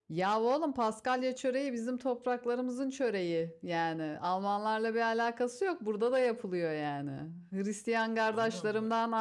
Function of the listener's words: listening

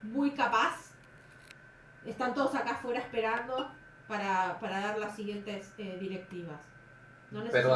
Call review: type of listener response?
taking over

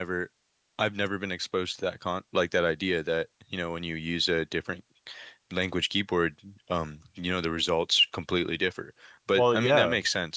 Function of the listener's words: listening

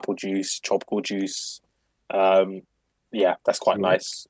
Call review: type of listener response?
listening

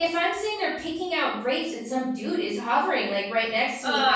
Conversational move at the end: listening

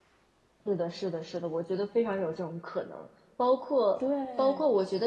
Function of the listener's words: listening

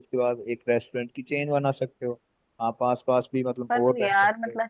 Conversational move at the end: taking over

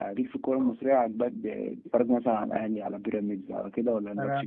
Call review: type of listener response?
taking over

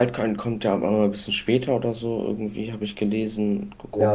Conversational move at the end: taking over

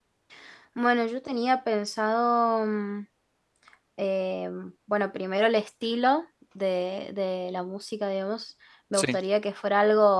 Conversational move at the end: listening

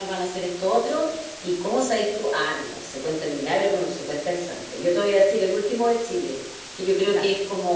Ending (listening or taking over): listening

